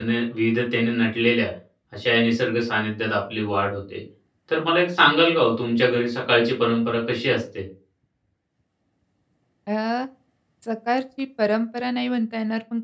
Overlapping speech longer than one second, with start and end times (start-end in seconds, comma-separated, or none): none